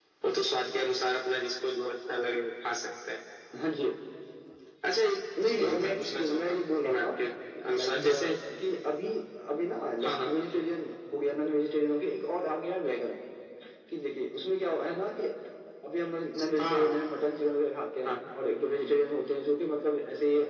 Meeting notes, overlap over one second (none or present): present